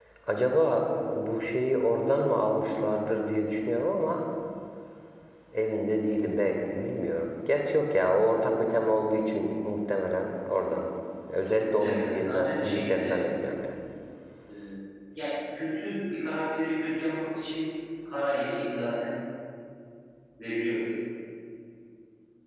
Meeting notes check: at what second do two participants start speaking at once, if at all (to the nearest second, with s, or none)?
12 s